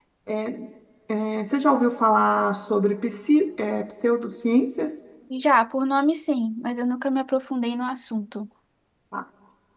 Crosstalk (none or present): none